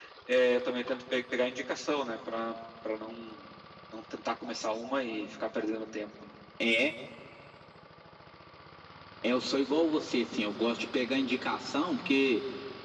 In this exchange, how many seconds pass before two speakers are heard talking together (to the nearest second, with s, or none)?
none